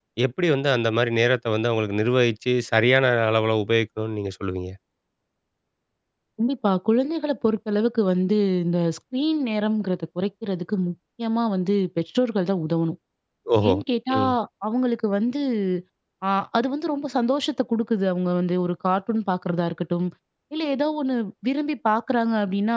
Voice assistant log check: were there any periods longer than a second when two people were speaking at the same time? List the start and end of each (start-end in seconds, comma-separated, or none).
none